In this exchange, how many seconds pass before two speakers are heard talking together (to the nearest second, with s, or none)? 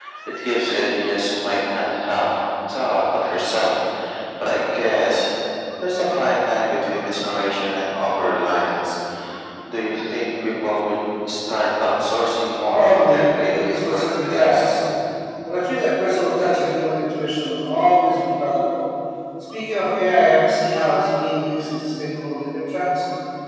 13 s